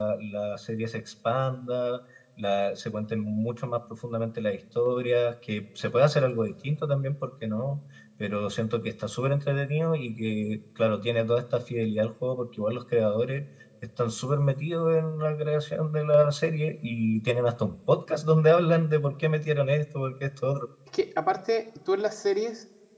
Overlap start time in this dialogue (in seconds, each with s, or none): none